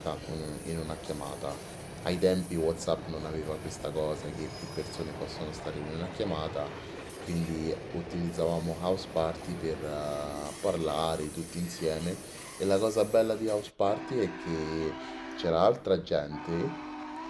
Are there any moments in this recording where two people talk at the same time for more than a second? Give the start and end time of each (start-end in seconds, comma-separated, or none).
none